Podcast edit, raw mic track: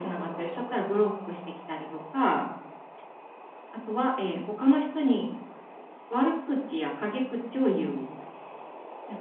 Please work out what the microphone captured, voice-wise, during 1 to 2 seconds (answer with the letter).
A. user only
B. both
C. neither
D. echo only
D